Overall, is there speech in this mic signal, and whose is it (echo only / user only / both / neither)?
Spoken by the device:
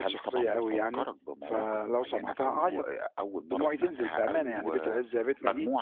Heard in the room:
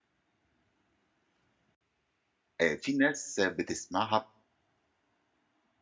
user only